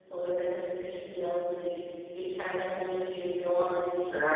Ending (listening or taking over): taking over